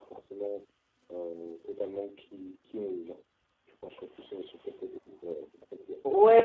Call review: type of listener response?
taking over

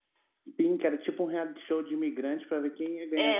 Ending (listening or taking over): taking over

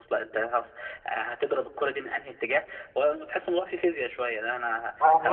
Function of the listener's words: listening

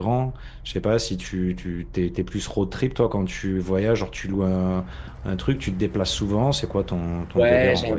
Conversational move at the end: taking over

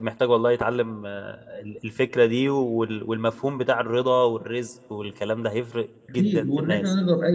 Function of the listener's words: taking over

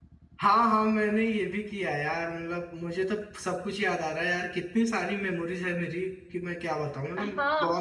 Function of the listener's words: taking over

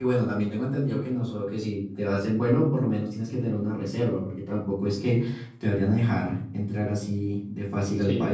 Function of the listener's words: taking over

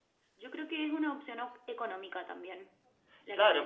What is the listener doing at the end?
taking over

